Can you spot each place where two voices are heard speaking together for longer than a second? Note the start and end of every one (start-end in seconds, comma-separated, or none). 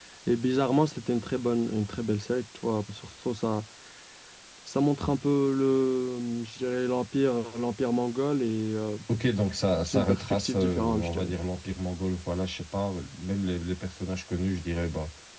9.8-11.3